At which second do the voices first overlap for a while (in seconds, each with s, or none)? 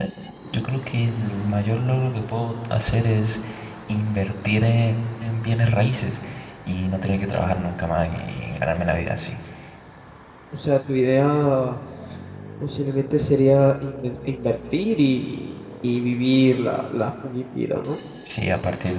none